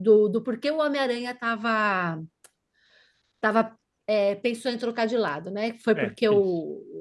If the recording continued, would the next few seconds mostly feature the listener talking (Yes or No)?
No